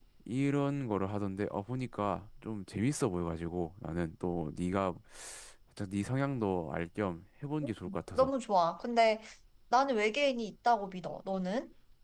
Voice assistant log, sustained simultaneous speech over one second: none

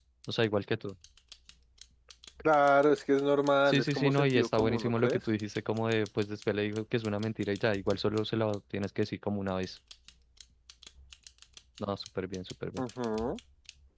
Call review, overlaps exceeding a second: present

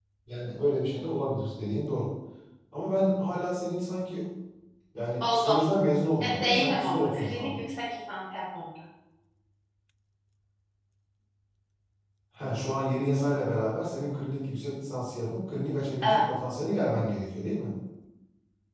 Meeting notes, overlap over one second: present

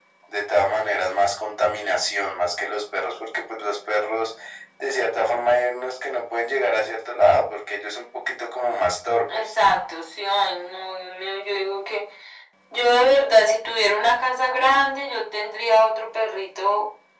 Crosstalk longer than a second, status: none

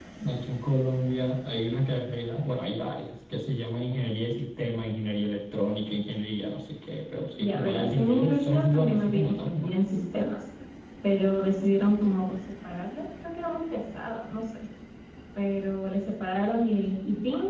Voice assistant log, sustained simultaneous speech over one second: present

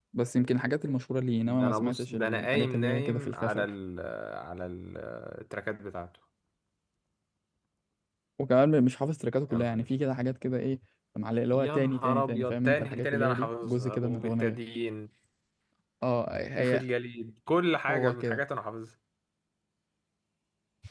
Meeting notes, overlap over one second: present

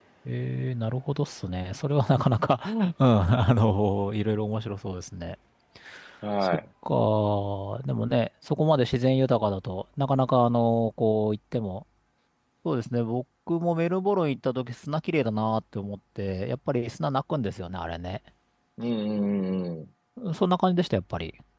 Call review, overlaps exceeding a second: none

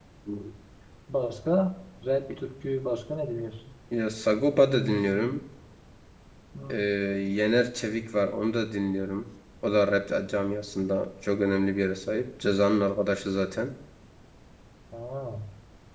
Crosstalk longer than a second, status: none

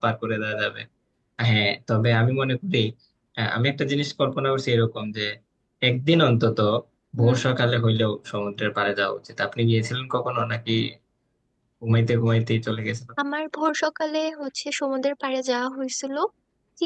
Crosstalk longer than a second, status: none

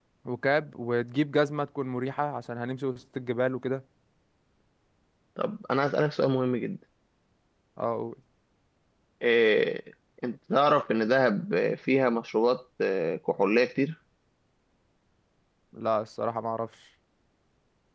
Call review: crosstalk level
none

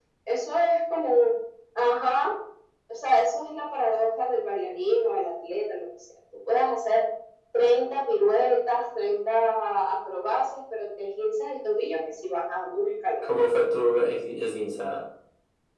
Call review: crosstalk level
none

